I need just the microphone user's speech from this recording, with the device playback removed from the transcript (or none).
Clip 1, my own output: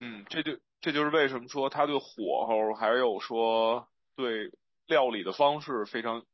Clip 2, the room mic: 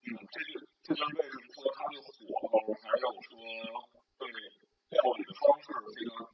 none